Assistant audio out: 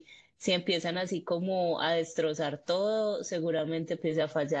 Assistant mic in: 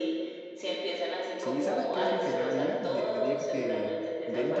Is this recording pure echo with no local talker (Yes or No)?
No